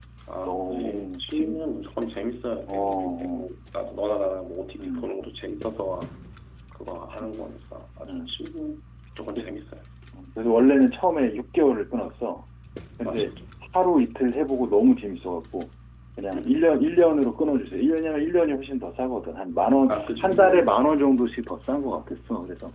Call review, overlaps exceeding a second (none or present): present